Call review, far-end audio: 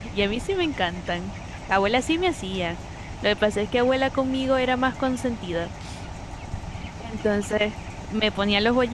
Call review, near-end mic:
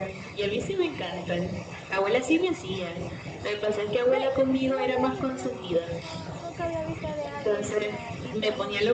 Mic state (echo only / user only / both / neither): both